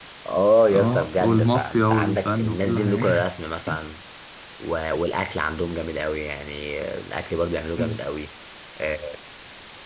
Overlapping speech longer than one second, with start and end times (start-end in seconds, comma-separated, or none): 0.7-3.0